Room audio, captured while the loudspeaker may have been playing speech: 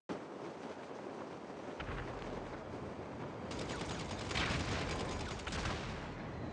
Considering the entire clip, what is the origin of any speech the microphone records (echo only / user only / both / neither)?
neither